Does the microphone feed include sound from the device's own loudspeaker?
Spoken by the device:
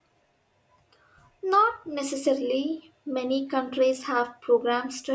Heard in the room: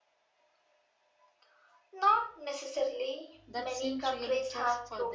Yes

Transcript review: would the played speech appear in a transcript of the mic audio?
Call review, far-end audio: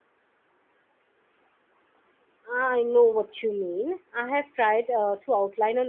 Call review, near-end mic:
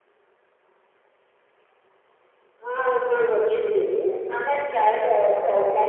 Yes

